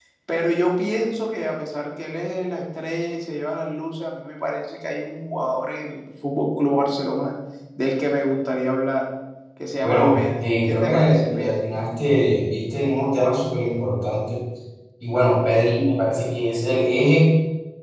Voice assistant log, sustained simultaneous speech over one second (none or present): present